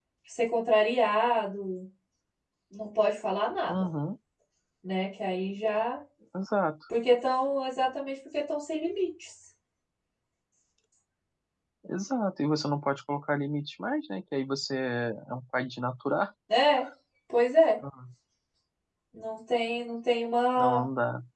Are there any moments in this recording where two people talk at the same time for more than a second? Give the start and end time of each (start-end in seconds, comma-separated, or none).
none